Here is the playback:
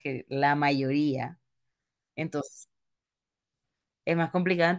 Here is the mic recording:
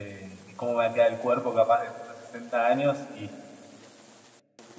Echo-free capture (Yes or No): Yes